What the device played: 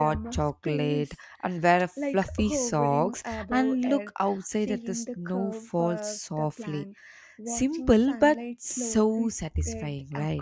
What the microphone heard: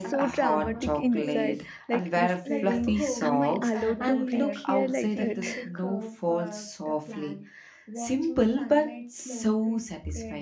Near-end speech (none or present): present